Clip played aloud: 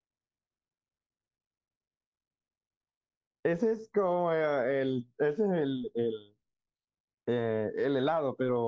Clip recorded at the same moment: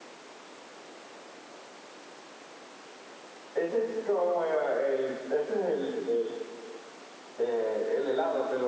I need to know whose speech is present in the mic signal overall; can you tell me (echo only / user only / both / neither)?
echo only